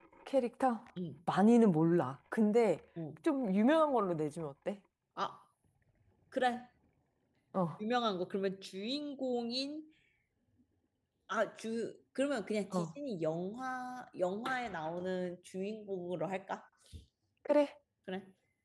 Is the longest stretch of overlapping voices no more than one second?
Yes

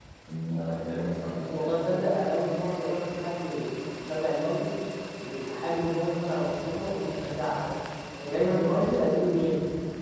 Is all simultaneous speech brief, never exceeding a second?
No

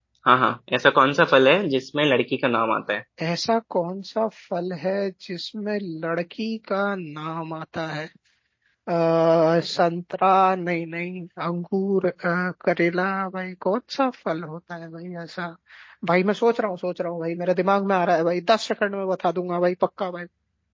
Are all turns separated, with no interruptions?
Yes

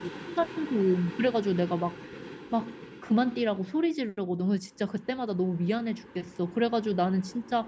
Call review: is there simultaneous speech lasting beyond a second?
No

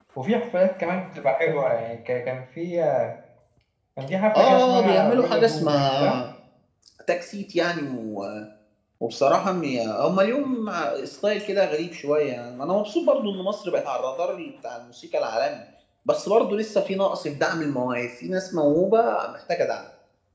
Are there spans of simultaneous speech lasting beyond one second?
Yes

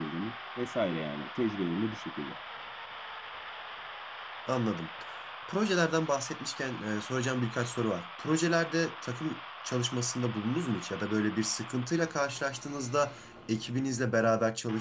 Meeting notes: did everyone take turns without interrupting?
Yes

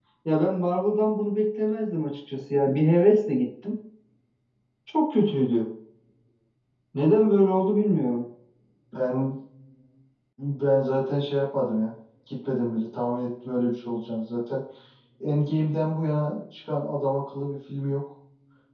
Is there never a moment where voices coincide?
Yes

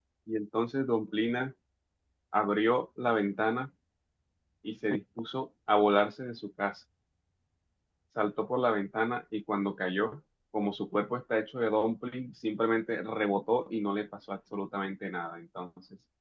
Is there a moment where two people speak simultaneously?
No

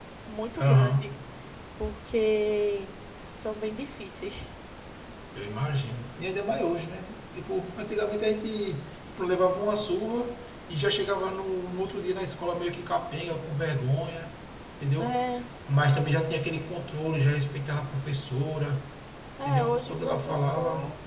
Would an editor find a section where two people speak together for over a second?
Yes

